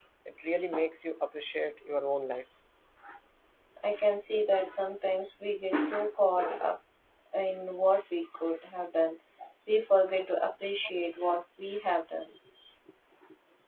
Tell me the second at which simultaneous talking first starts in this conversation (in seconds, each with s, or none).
none